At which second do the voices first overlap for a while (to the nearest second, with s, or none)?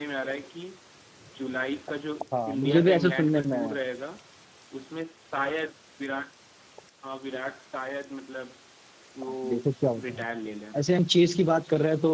2 s